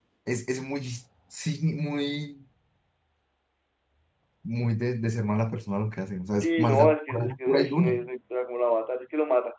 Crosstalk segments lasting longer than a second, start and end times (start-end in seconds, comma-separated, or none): 6.3-7.9